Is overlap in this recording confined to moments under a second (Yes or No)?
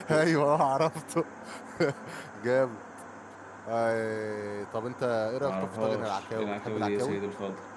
No